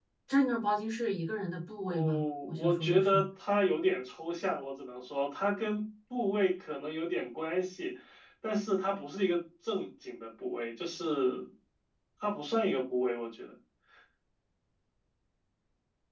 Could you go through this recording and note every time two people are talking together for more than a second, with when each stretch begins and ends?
1.9-3.2

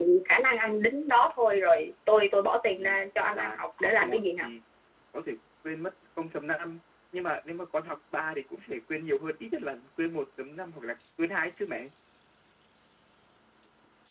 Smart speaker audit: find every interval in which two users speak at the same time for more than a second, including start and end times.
2.8-4.5

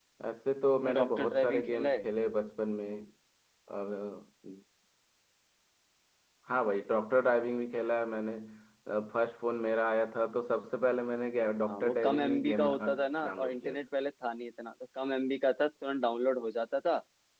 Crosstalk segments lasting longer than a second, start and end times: 0.8-2.1, 11.6-13.8

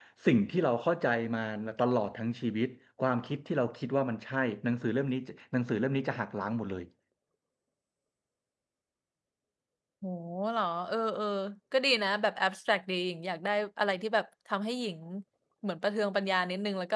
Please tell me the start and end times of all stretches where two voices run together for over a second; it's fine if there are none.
none

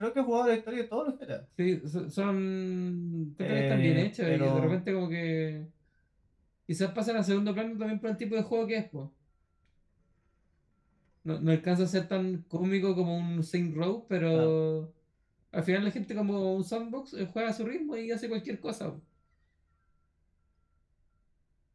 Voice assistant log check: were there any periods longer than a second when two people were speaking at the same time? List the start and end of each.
3.4-4.8

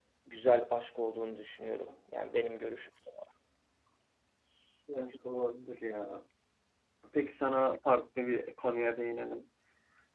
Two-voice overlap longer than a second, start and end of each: none

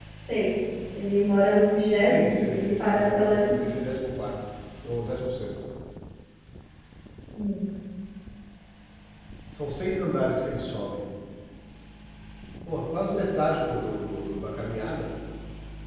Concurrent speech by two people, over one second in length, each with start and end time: 2.0-3.6

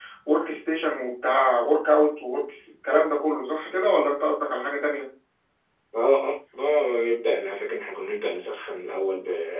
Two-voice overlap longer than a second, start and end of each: none

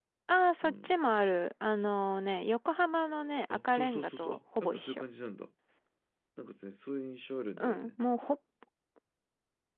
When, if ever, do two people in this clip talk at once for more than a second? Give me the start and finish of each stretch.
3.5-5.0

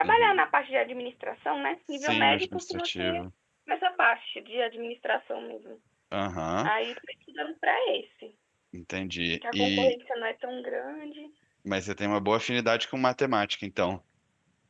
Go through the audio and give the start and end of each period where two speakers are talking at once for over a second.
2.0-3.2

